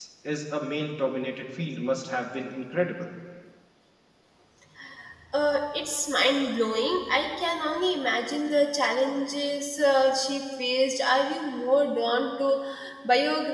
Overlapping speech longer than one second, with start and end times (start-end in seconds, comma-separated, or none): none